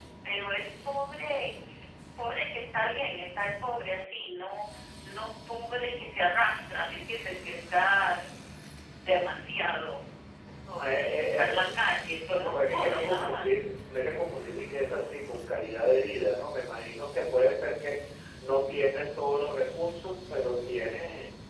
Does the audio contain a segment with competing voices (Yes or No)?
Yes